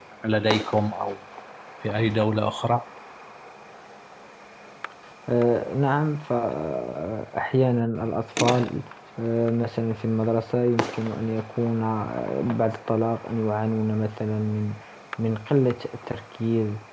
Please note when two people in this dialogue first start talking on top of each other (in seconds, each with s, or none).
none